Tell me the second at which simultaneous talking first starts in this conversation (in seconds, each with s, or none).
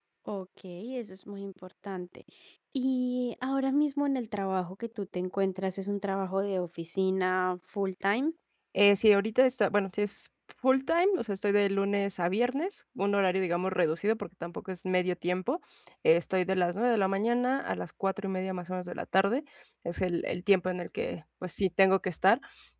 none